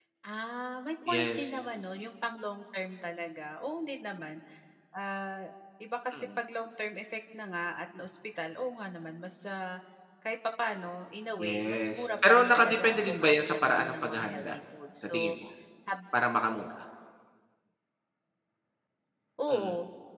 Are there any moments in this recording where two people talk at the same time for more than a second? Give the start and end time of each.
11.4-14.6

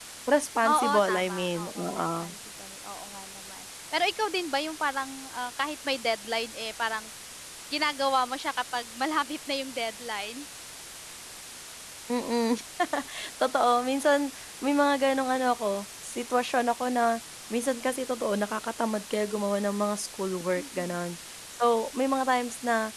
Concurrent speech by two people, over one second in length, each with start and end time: 0.6-2.3

